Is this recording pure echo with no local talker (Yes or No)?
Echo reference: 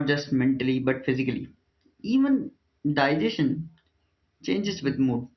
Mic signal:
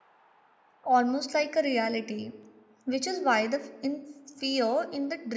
No